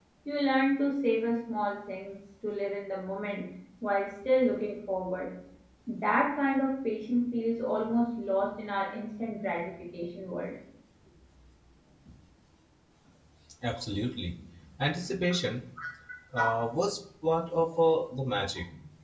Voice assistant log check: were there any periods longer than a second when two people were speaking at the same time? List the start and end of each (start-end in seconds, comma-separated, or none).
none